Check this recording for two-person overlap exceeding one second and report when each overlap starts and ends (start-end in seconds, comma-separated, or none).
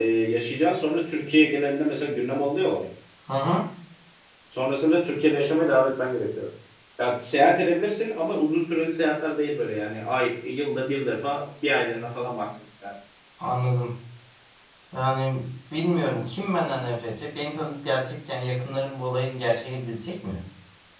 none